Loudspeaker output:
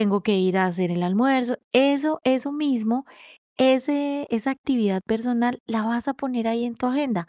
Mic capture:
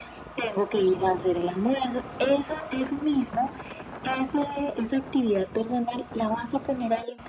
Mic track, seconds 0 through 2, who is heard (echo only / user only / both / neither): echo only